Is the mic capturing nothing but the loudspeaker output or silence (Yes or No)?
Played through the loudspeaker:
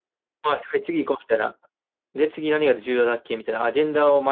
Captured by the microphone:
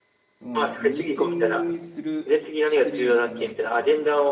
No